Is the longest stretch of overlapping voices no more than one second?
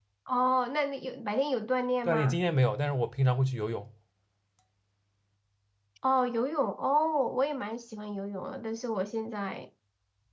Yes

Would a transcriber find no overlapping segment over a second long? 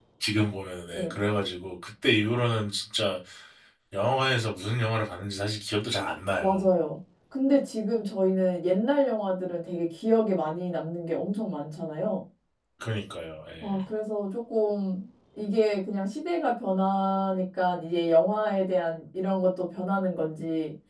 Yes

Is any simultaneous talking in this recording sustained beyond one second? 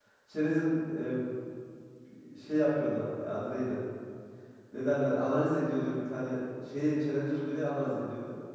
No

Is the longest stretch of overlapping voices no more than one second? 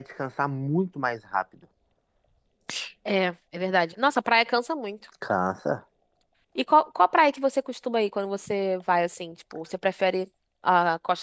Yes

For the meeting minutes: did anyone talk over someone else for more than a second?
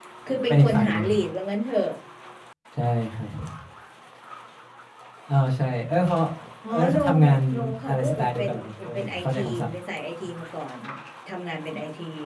Yes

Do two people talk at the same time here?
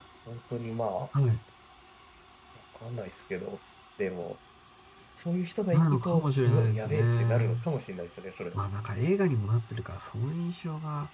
Yes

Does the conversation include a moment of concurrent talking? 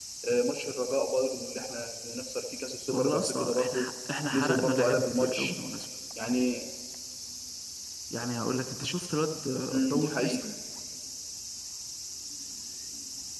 Yes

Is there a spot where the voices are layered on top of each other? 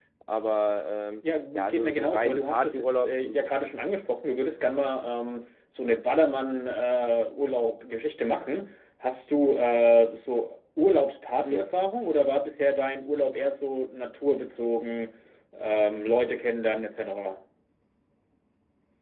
Yes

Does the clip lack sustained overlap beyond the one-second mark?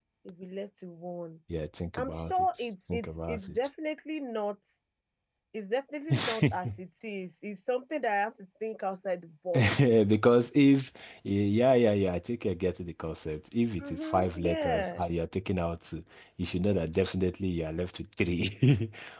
No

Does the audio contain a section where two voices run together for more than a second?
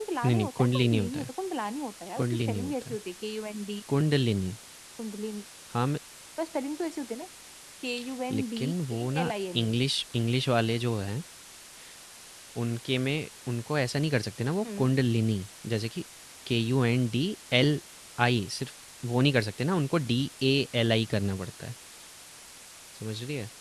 Yes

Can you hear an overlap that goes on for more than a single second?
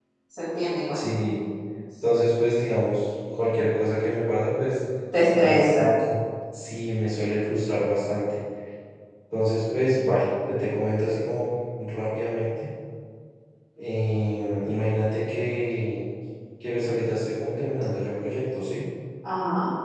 No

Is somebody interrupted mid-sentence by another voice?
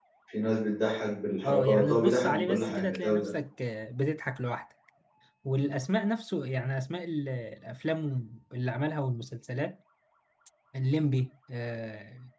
Yes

